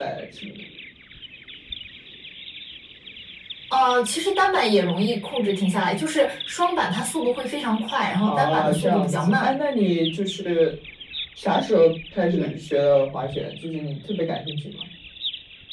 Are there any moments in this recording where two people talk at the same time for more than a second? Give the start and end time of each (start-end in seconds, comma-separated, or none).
8.2-9.5